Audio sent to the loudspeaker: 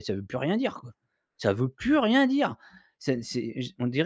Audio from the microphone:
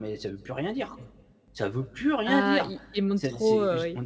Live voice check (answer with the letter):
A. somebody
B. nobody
A